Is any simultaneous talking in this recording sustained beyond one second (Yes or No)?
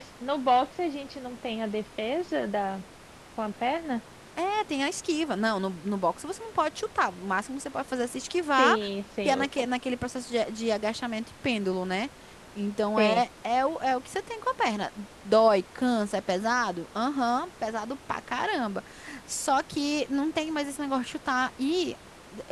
No